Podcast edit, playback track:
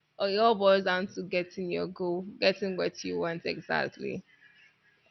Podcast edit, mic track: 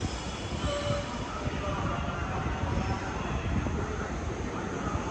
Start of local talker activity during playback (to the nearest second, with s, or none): none